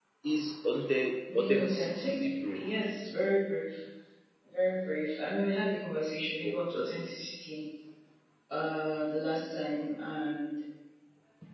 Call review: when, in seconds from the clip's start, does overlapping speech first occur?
1.3 s

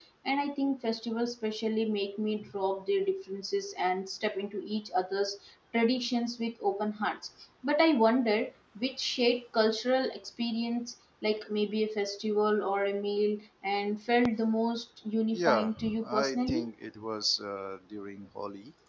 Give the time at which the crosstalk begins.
15.3 s

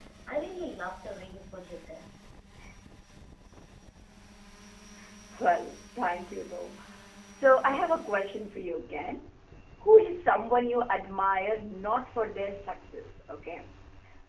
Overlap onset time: none

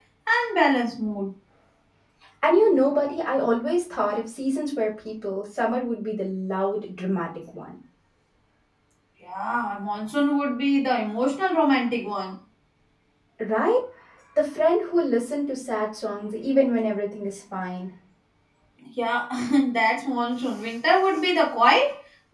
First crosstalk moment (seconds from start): none

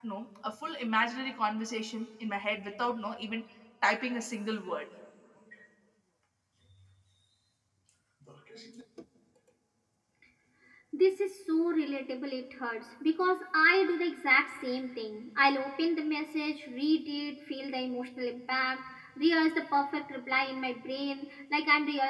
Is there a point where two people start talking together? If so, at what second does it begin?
none

